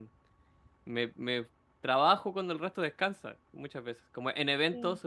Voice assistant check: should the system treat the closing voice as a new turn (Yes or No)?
No